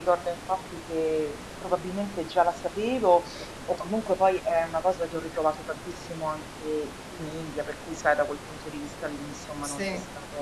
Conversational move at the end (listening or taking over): listening